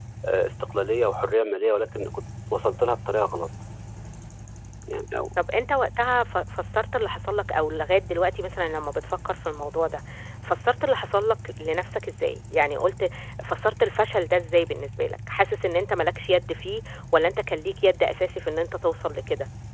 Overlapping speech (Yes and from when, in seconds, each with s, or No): No